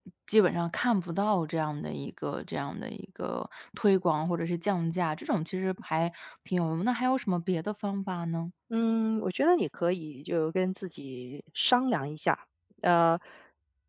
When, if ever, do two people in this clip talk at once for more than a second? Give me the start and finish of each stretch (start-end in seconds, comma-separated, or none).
none